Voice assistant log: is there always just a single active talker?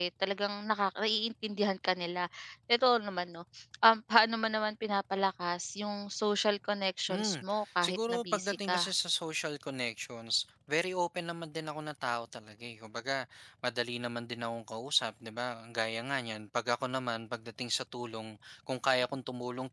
No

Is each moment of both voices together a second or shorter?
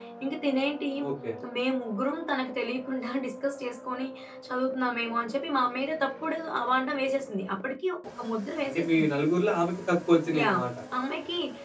Yes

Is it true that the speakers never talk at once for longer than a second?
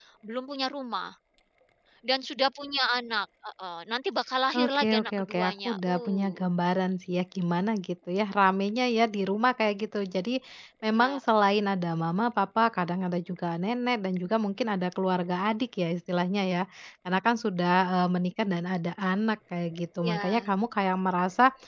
No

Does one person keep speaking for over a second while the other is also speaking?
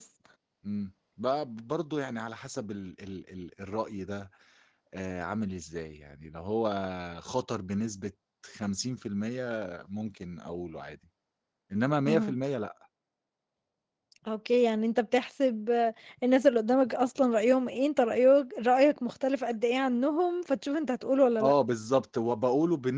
No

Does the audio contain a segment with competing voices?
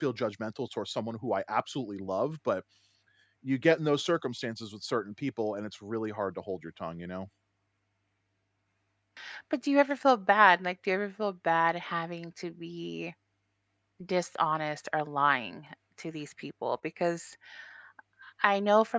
No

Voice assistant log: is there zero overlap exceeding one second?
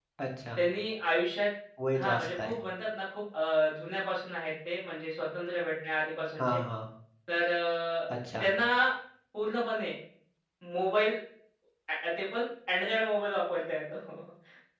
Yes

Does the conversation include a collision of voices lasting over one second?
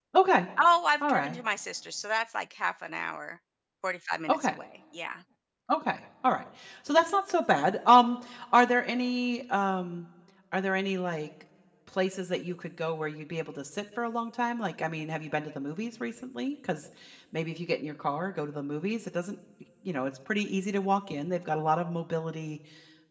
No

